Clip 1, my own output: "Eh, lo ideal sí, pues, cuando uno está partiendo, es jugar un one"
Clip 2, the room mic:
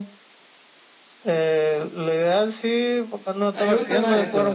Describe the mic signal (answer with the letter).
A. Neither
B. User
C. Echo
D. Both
D